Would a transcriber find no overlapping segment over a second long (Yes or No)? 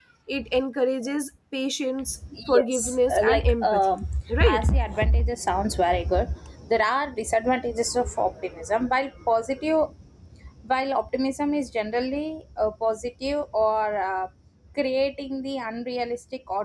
No